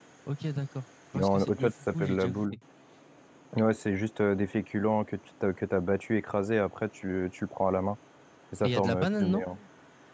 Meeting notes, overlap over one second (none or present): present